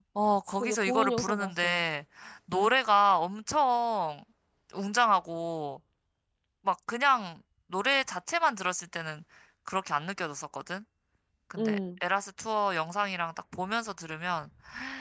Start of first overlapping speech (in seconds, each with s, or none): 0.6 s